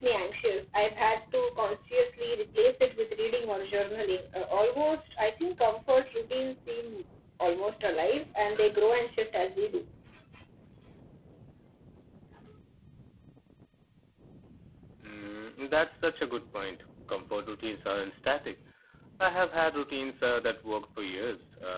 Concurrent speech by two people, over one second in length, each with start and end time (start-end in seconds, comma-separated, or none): none